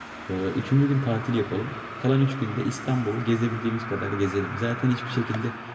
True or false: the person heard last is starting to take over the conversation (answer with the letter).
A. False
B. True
A